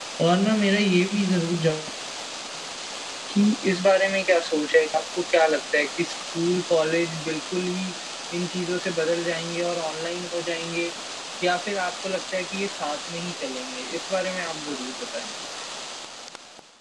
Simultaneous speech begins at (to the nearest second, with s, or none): none